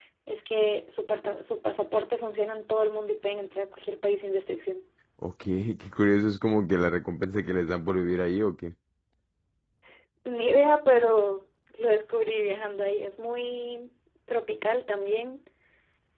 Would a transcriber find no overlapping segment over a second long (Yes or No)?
Yes